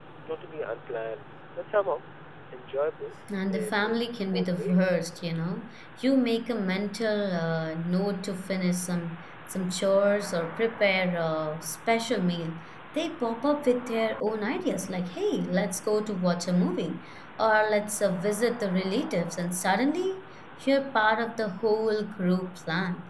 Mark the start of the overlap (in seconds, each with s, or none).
3.5 s